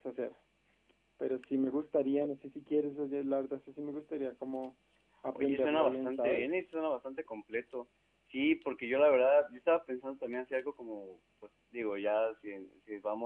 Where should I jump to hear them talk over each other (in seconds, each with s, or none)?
5.3 s